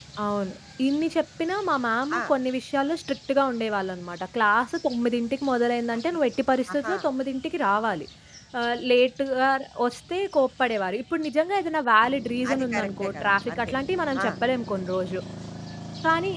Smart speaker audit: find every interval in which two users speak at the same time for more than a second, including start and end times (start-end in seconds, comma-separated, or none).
12.5-13.7